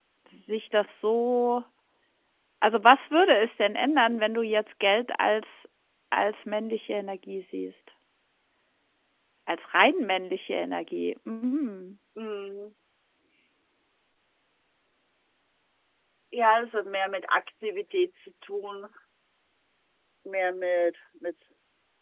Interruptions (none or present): none